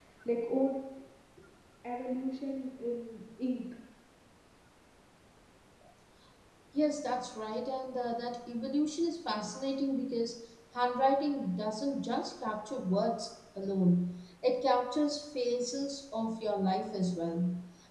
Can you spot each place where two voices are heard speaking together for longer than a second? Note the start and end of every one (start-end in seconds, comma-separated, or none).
none